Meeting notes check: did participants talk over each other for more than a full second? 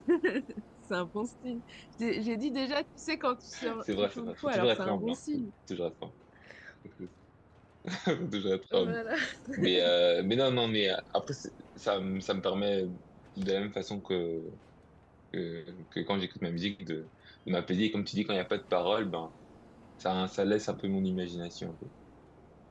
Yes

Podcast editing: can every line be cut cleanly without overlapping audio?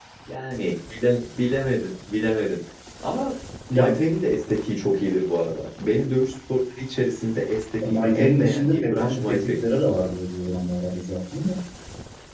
No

